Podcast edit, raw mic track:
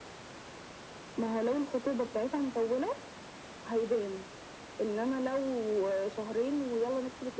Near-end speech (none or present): none